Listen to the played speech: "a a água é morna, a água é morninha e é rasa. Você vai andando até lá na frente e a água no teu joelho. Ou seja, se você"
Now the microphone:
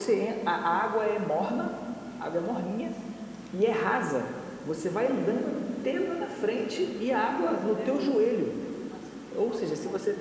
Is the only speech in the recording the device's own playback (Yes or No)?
No